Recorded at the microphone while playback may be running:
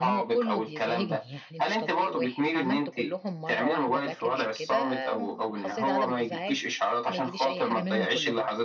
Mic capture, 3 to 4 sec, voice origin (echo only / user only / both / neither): both